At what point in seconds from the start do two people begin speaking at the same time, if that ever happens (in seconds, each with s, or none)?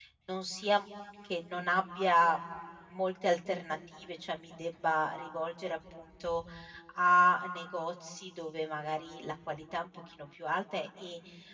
none